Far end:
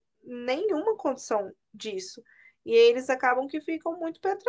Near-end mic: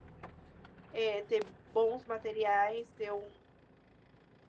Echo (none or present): none